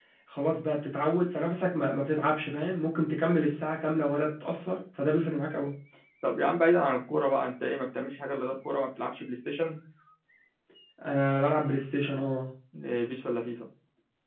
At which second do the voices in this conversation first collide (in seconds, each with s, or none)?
none